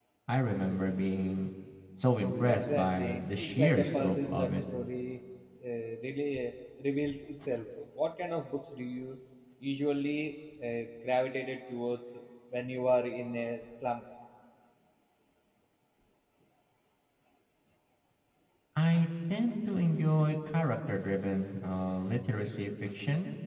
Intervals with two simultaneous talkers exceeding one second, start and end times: 2.4-4.5

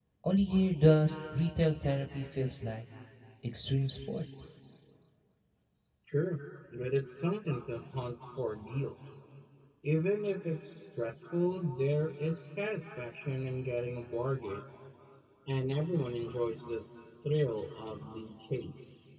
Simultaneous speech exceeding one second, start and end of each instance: none

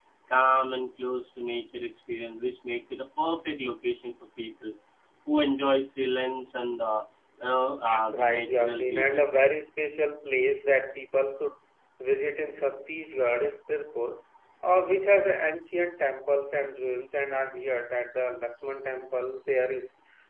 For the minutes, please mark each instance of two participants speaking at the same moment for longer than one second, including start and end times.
7.8-9.2

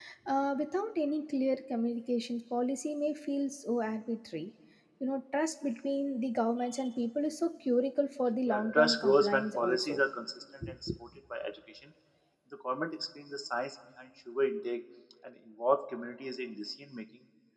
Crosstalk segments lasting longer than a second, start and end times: 8.4-10.0

